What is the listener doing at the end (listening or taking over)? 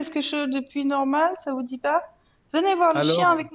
listening